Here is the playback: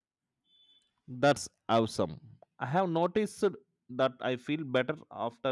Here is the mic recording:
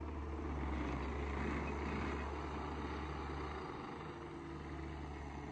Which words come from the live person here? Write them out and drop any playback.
none

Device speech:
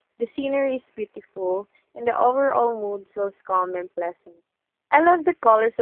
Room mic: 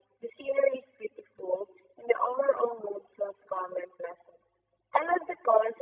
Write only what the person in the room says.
none

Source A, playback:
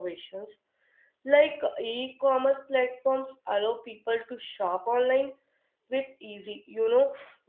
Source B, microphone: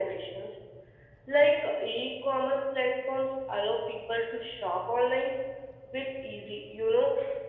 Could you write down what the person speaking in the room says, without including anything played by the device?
none

